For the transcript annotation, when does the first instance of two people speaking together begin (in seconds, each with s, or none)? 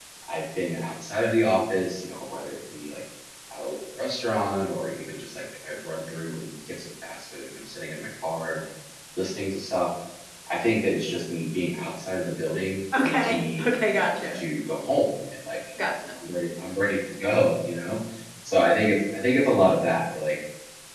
12.9 s